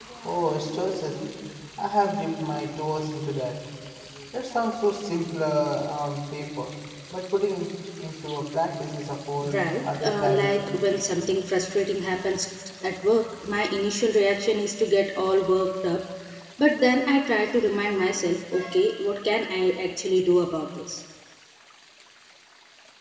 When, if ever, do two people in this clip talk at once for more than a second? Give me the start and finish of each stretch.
9.5-10.8

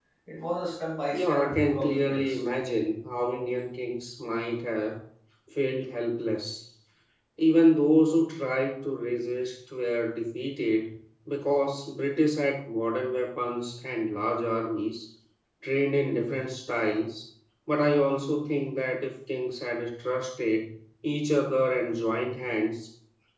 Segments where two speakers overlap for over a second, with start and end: 1.1-2.4

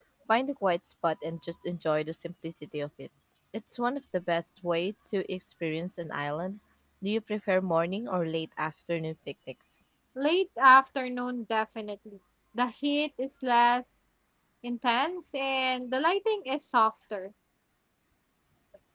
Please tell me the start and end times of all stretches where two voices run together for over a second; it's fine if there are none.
none

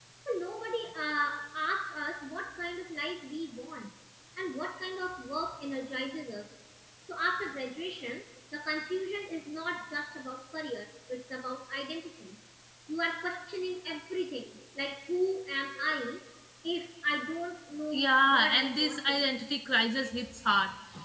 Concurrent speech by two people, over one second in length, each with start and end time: 17.9-19.4

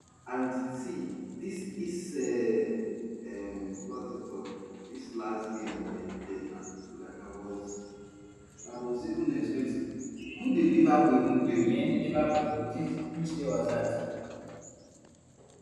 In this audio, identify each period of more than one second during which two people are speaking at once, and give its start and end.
none

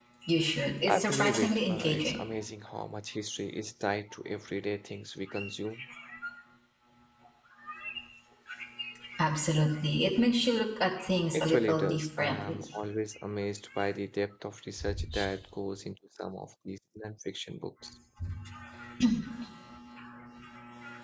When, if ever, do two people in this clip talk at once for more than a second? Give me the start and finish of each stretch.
0.8-2.2, 11.3-12.6

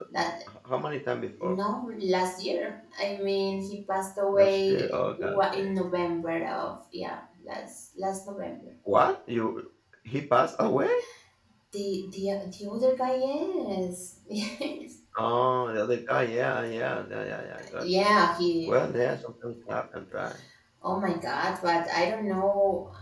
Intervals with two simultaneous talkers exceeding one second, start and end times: 4.3-5.7

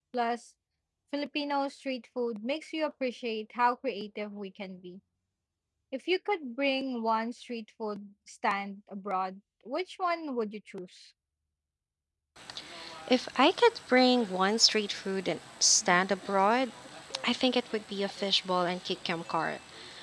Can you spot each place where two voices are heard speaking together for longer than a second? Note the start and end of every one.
none

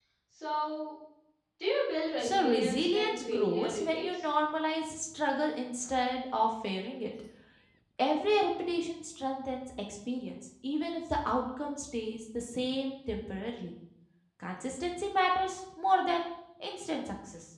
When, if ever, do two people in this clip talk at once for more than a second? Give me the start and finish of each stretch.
2.2-4.2

